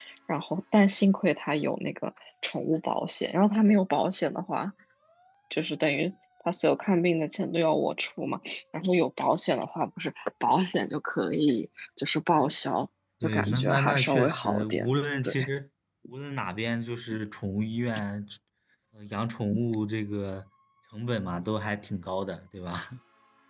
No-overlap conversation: No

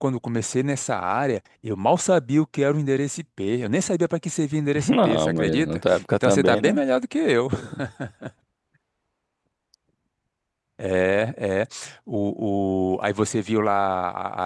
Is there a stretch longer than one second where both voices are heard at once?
Yes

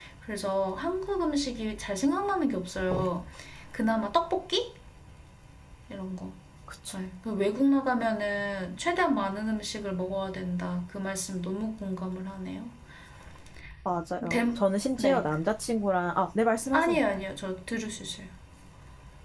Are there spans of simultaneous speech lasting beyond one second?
No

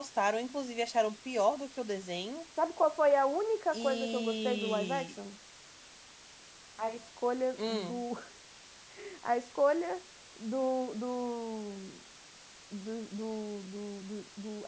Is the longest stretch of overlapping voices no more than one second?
No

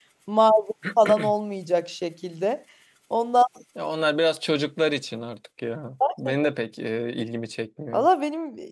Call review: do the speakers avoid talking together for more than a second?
Yes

